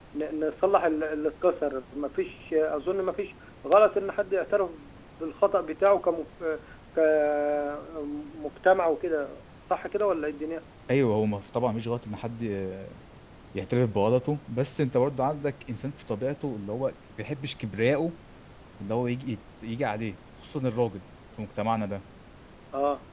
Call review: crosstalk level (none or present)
none